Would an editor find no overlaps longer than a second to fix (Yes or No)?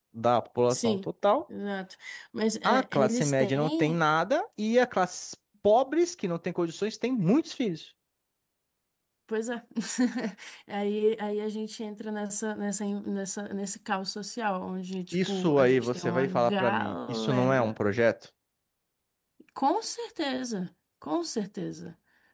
No